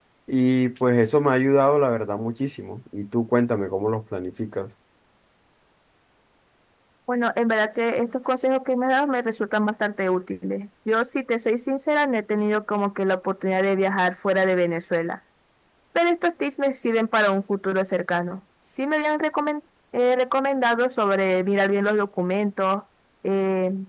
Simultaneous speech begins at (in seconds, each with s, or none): none